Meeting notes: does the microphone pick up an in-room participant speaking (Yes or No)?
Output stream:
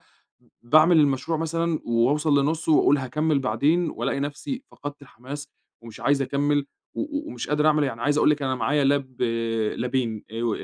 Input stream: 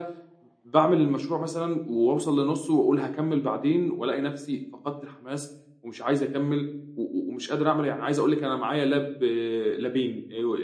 No